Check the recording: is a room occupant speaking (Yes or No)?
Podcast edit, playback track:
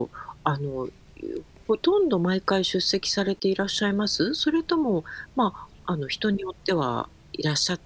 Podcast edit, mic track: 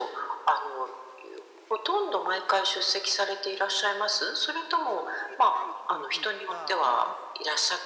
Yes